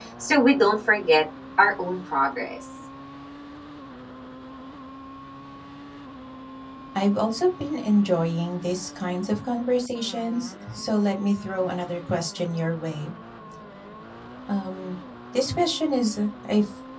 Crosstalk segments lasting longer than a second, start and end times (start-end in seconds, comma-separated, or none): none